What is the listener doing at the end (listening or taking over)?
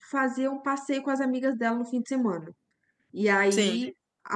listening